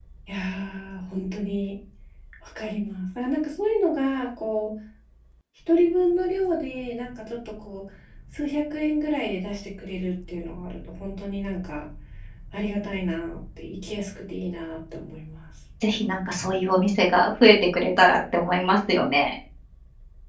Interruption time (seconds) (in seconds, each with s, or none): none